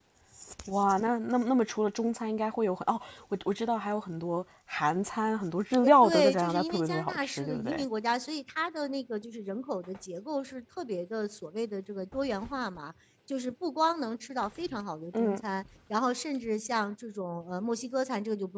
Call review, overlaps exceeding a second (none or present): present